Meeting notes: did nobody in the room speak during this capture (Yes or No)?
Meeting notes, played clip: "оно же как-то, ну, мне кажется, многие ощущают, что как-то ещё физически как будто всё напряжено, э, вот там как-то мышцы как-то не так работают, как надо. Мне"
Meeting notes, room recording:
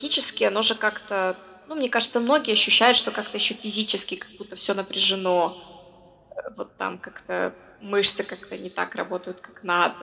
Yes